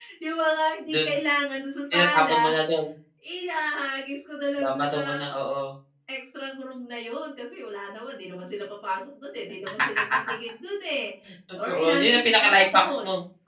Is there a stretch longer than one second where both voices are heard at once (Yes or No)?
Yes